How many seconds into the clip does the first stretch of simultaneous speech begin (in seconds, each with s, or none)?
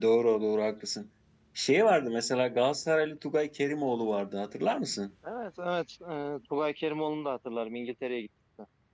none